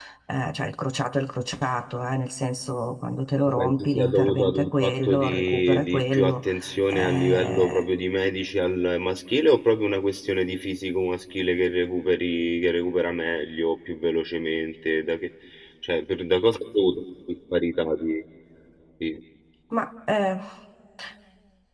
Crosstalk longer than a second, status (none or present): present